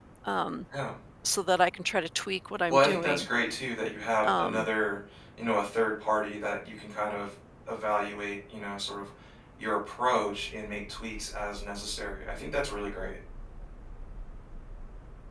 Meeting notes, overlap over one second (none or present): none